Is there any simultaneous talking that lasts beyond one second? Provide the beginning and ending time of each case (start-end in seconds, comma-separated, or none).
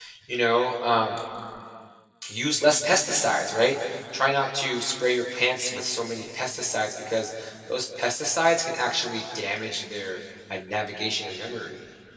none